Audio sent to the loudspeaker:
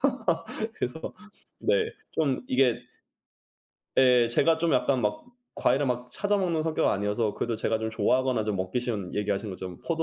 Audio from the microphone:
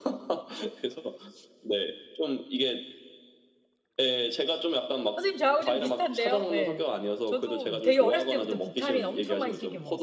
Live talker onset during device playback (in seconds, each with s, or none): 5.1 s